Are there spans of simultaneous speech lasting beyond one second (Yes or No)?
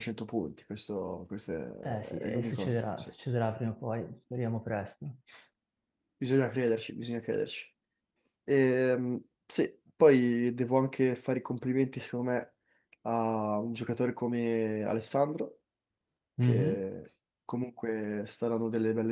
Yes